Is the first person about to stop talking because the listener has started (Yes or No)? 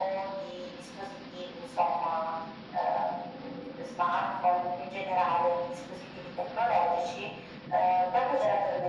No